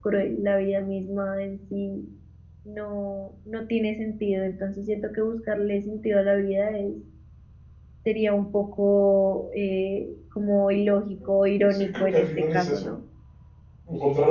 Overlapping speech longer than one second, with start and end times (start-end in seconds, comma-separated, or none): 11.7-12.9